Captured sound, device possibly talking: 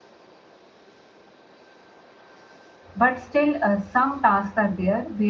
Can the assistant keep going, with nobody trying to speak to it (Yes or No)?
No